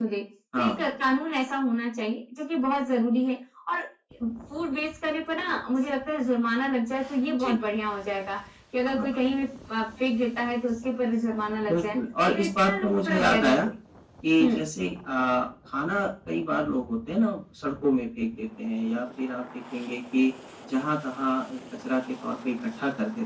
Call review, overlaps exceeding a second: present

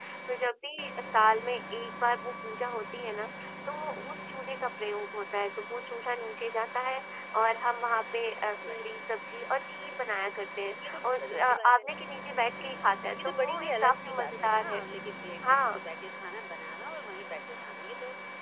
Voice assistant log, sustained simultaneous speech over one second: present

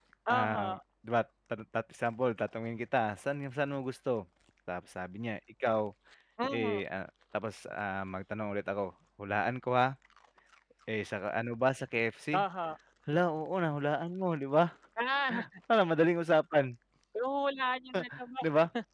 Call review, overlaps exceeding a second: none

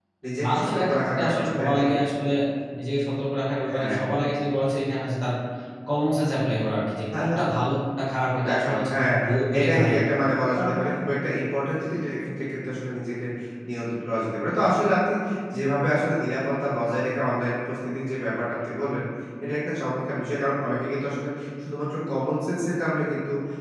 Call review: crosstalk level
present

